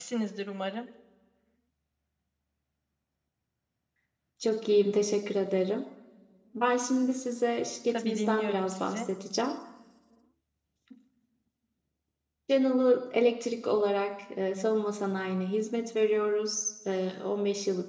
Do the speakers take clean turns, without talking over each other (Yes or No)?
No